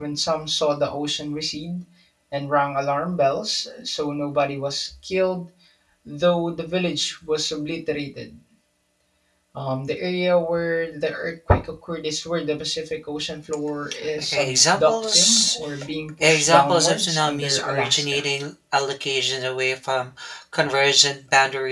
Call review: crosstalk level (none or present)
present